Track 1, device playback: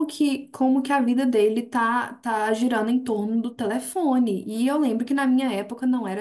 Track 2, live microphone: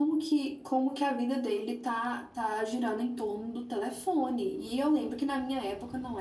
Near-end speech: none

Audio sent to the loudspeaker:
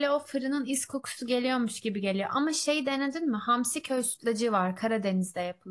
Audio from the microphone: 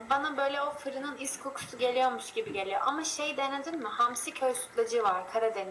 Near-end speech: none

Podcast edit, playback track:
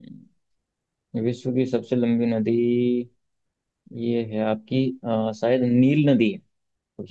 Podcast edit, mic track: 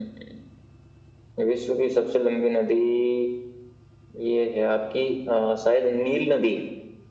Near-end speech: none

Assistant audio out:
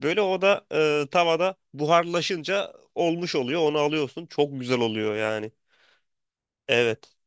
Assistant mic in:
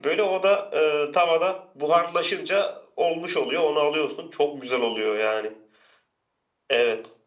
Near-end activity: none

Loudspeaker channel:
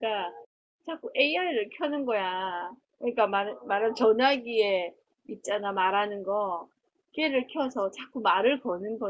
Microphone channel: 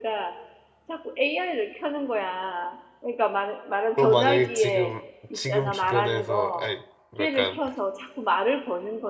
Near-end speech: present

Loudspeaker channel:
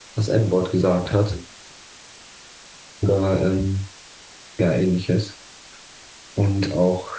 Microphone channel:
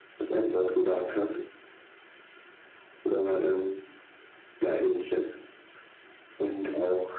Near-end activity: none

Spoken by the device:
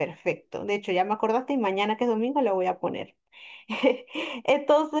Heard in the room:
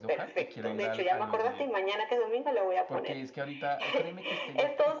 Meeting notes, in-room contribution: present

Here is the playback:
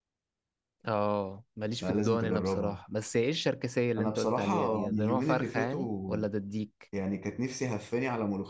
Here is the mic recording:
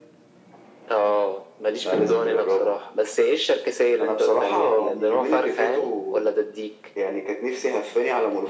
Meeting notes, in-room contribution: none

